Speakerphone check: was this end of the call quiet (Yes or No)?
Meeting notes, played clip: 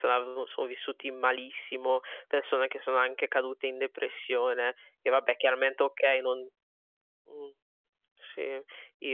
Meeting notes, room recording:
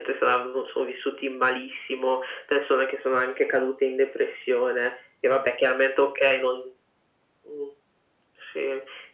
Yes